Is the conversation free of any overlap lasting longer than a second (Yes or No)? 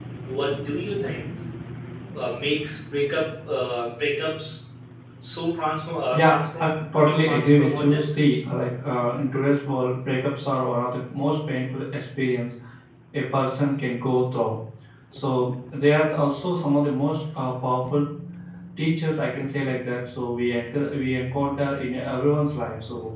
No